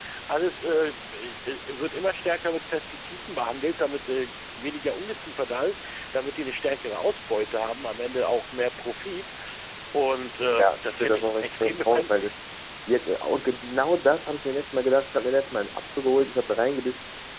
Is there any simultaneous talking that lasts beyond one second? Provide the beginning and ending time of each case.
10.6-12.3

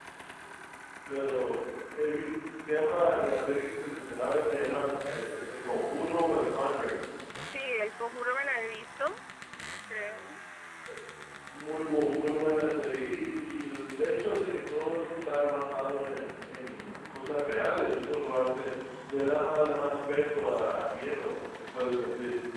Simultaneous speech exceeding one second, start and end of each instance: none

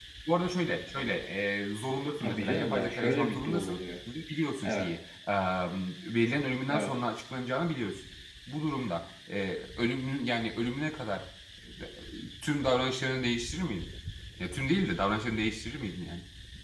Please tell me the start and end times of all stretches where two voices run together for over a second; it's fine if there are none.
2.2-3.8

